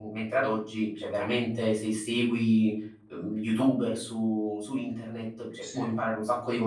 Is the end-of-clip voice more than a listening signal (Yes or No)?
No